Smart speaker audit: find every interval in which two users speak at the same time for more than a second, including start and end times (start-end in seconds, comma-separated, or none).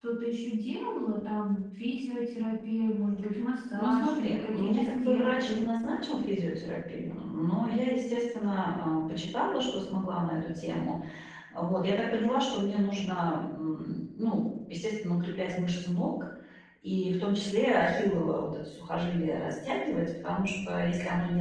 3.8-5.6